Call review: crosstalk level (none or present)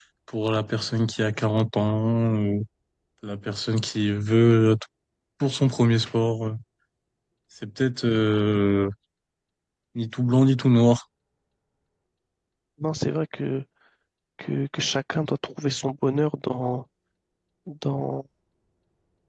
none